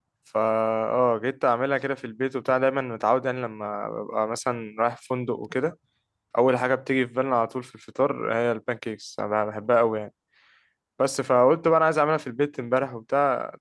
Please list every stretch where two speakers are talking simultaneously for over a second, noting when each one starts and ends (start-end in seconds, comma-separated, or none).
none